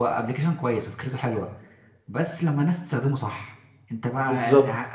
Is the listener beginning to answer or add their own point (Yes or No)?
No